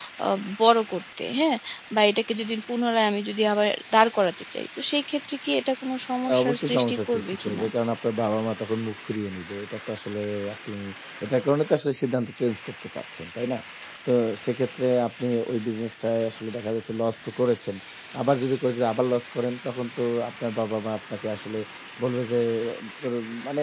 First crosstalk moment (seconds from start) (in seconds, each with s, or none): 6.2 s